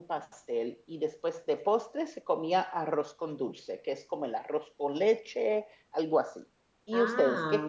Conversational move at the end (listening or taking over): taking over